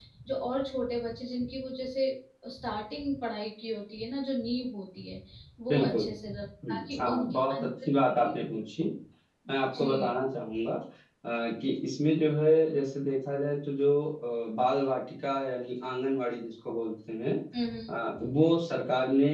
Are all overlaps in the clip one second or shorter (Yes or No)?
No